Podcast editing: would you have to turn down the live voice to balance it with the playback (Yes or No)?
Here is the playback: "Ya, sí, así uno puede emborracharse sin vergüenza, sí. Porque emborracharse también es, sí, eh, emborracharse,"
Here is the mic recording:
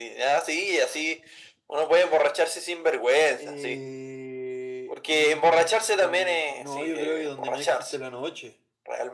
No